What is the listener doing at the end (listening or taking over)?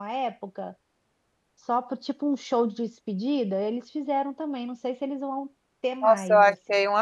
taking over